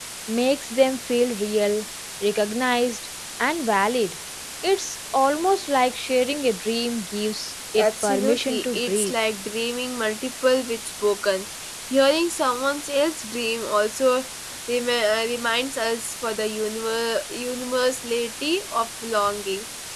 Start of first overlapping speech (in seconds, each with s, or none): 7.8 s